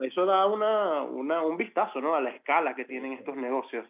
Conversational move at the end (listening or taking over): taking over